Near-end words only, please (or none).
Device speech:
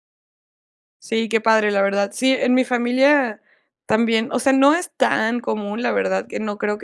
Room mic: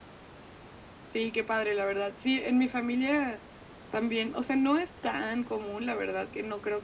none